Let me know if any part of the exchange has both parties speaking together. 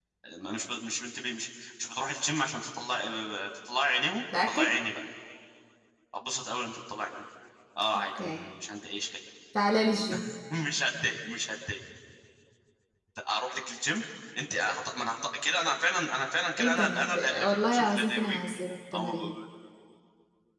Yes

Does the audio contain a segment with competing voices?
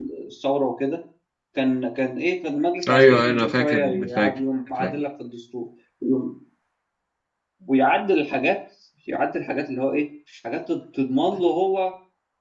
Yes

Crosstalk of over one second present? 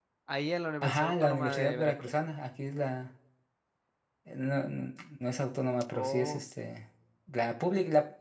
Yes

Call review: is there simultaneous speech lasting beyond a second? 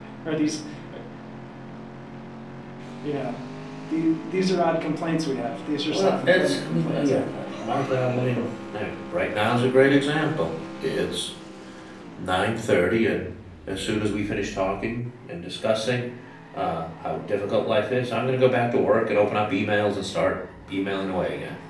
Yes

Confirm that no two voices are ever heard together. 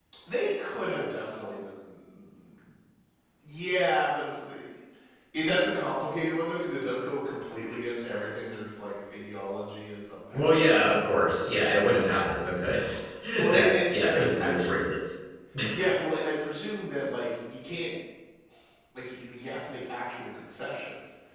No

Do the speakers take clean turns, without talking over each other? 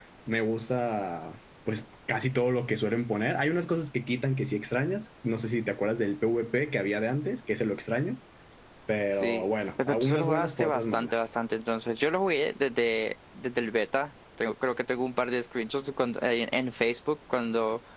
No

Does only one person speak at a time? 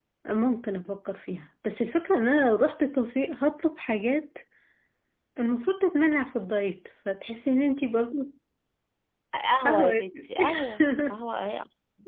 No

